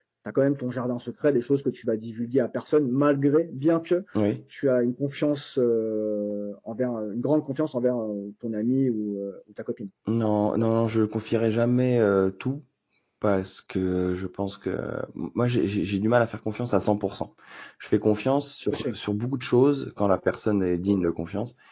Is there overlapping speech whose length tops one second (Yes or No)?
No